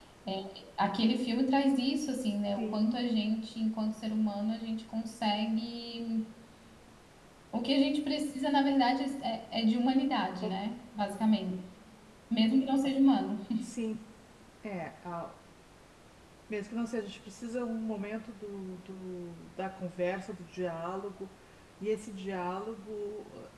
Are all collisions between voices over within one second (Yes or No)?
Yes